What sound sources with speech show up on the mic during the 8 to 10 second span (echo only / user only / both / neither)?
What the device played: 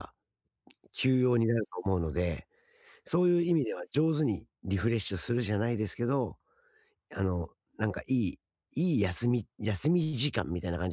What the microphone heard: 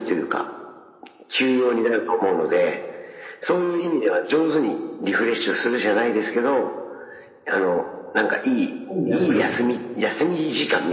both